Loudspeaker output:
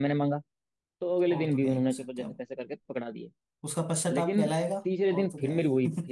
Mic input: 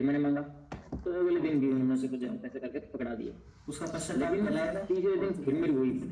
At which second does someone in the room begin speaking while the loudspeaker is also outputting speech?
none

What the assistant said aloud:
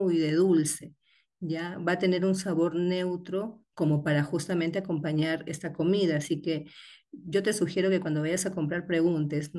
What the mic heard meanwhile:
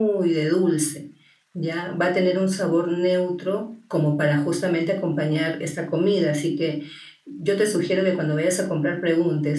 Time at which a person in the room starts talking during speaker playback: none

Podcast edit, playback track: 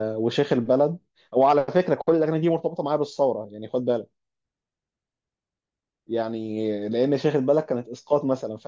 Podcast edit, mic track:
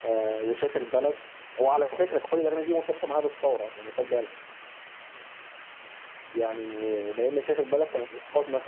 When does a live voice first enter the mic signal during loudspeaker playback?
none

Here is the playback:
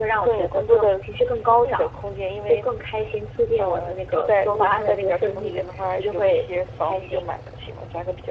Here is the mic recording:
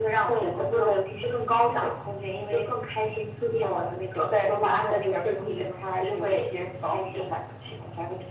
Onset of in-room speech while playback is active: none

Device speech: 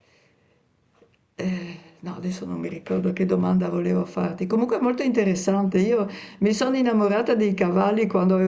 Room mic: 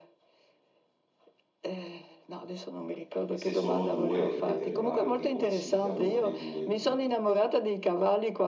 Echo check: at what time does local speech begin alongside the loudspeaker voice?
3 s

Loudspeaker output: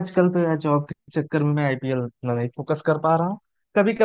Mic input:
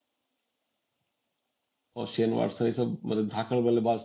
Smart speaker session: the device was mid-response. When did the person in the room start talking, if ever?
2 s

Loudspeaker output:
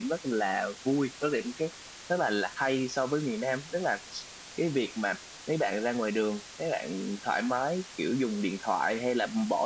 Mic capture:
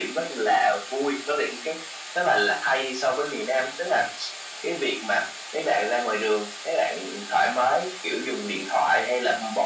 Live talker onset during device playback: none

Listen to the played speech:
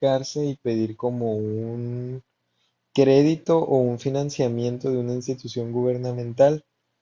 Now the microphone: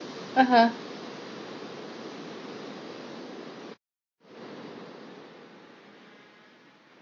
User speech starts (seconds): 0 s

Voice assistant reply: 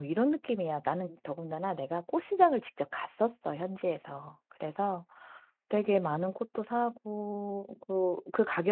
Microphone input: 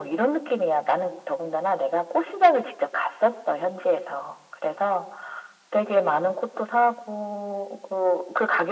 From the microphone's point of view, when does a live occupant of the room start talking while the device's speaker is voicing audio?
none

